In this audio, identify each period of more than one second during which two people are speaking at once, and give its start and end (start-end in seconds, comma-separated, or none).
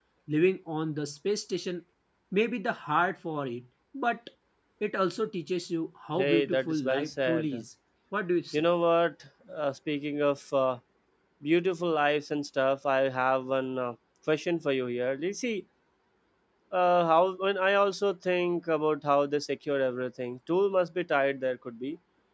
6.1-7.6